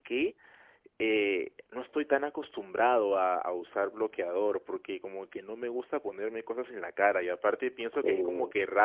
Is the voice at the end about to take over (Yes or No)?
No